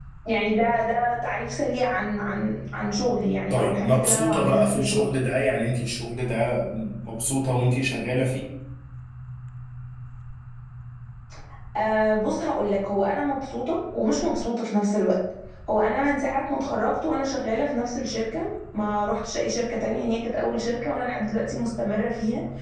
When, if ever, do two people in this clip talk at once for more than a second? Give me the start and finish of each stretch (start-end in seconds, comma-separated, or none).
3.5-5.0